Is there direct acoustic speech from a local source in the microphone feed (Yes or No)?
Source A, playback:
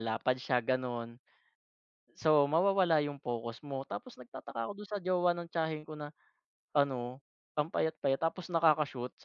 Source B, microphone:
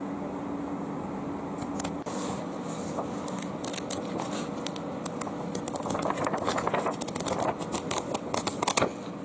No